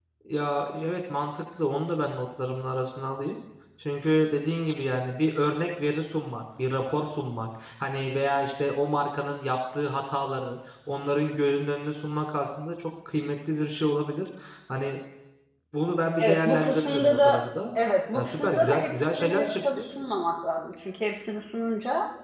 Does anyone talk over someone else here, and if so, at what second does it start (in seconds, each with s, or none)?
16.2 s